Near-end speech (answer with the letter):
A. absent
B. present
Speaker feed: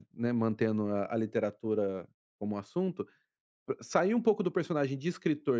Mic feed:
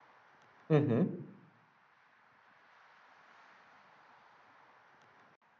B